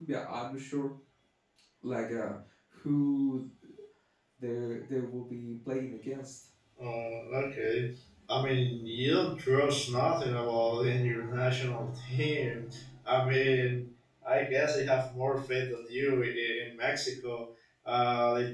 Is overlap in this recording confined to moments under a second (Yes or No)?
Yes